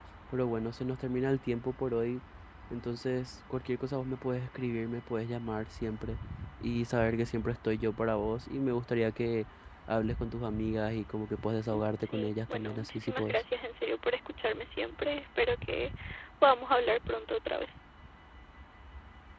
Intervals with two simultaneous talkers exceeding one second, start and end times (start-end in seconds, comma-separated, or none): 11.7-13.4